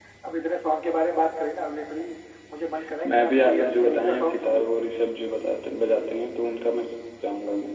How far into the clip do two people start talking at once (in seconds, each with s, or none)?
3.0 s